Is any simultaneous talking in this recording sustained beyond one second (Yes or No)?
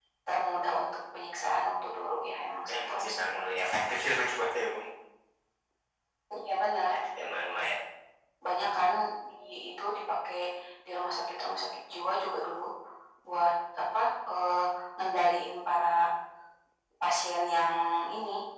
No